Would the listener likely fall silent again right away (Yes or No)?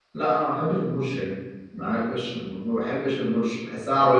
Yes